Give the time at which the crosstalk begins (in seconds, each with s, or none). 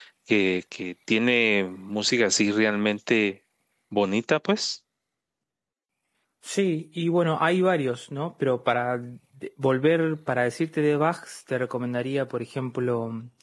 none